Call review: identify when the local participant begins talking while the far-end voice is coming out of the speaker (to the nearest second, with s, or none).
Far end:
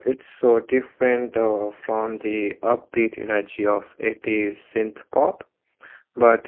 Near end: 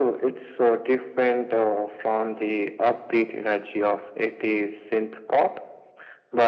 none